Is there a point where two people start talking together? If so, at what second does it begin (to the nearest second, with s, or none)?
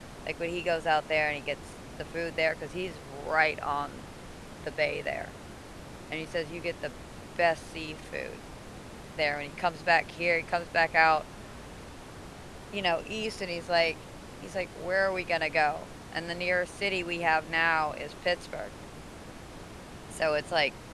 none